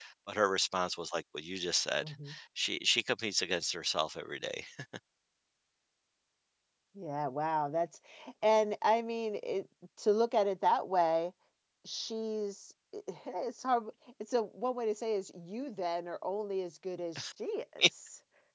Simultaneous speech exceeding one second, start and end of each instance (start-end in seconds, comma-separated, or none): none